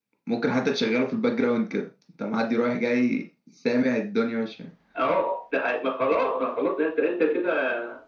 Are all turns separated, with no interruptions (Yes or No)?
Yes